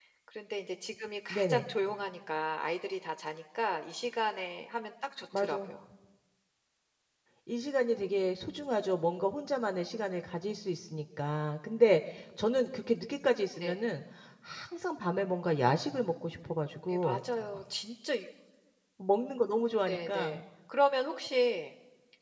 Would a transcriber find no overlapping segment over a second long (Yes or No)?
Yes